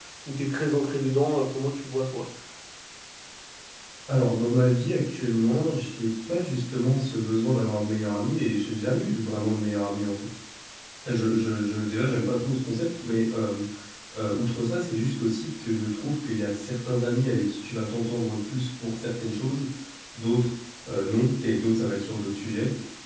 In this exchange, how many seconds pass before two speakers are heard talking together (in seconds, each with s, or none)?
none